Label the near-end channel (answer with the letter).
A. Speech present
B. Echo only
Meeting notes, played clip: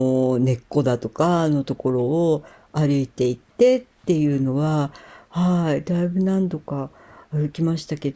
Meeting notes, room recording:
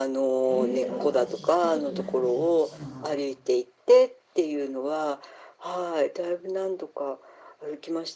A